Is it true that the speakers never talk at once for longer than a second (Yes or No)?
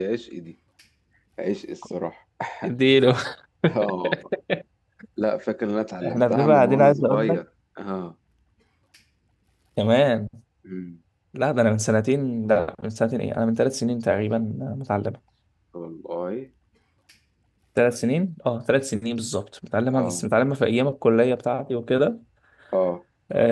No